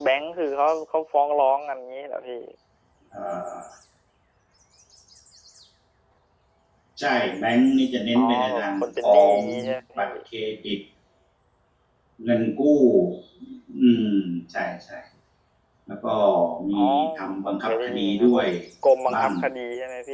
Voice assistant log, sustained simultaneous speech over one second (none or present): present